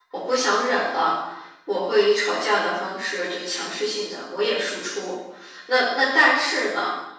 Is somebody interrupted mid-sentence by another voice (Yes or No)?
No